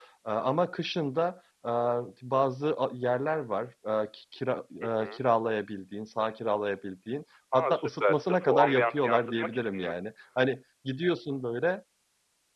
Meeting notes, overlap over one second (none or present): present